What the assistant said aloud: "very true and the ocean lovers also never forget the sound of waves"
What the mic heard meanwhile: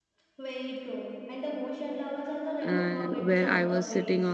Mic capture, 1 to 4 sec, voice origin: both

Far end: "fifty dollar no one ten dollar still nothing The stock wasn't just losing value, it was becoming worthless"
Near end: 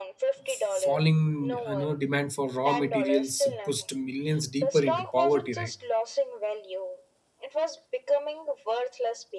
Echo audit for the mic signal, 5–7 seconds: both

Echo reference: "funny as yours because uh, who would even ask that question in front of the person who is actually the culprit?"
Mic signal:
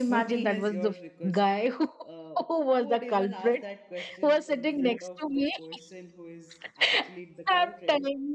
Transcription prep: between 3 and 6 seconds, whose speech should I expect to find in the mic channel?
both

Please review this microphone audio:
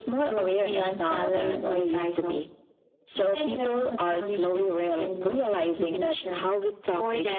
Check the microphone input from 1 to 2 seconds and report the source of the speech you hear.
echo only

